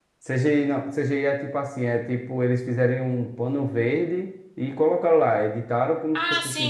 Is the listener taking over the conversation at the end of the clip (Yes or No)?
Yes